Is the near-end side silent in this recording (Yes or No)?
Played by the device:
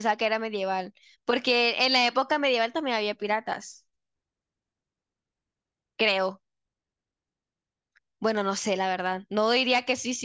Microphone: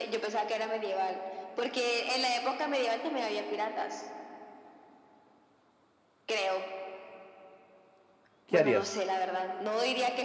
No